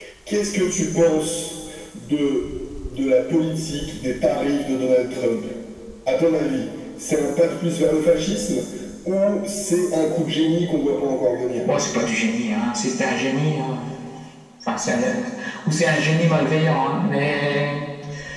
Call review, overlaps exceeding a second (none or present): none